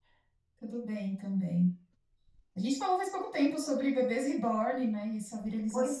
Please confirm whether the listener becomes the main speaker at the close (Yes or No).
Yes